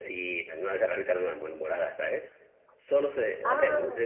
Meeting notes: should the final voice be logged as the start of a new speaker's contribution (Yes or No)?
No